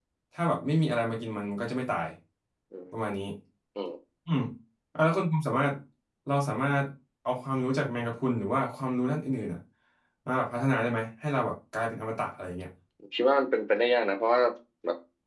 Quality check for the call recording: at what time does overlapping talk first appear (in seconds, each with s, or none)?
none